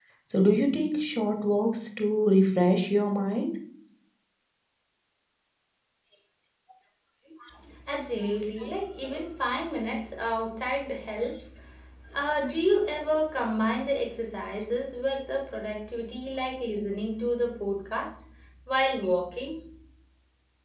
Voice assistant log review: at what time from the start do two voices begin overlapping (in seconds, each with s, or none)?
none